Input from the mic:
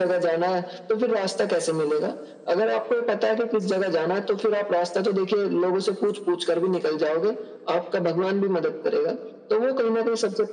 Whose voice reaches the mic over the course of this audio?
echo only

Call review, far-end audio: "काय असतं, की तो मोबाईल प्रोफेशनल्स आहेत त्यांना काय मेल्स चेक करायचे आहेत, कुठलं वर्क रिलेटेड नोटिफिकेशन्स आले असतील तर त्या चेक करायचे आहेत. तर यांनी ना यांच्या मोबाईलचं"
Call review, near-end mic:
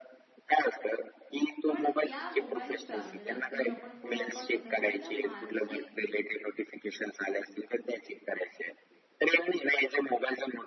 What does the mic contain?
both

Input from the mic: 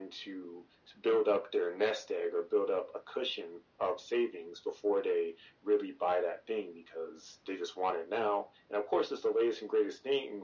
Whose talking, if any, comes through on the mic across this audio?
echo only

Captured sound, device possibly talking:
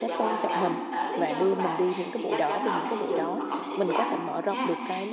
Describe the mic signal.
both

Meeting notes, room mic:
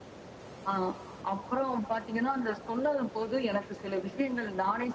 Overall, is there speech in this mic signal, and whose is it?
echo only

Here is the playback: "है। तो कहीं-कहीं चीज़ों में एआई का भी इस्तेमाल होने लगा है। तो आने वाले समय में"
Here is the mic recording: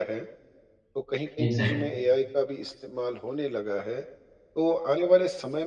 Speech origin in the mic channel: both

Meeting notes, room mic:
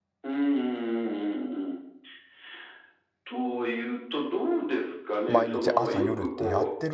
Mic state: both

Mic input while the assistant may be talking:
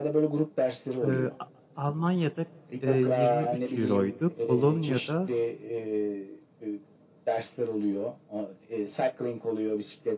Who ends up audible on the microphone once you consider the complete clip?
both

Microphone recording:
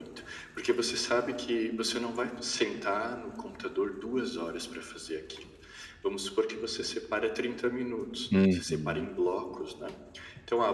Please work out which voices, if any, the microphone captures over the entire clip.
both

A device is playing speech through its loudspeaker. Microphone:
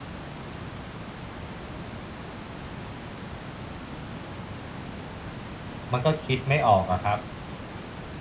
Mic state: user only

